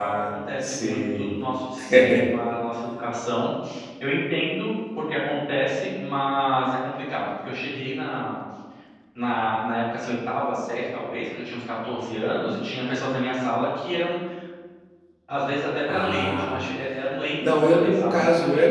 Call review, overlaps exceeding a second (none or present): present